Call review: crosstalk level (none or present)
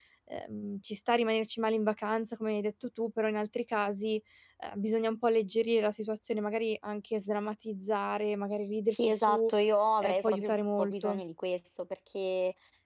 present